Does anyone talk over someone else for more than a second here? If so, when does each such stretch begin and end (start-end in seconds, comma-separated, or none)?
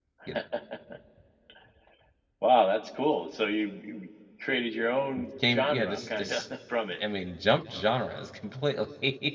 5.2-6.4